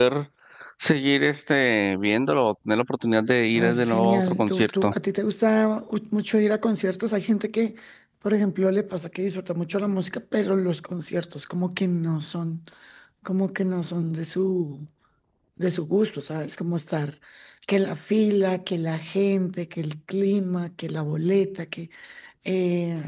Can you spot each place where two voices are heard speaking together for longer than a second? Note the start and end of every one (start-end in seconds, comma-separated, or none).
3.5-4.9